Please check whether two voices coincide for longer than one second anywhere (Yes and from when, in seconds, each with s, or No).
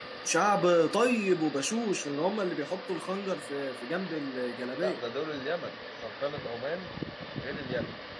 No